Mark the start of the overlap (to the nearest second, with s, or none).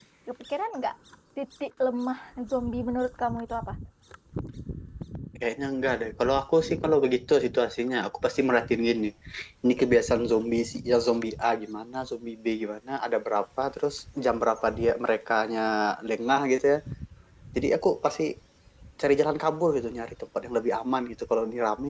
none